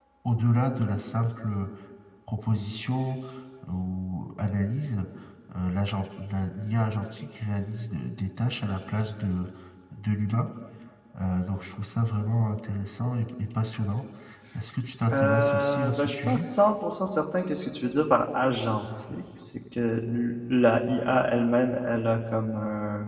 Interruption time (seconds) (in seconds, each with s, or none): 15.1 s